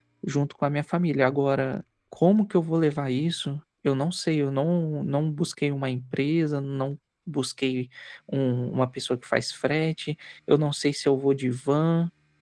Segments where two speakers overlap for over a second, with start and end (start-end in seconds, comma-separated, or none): none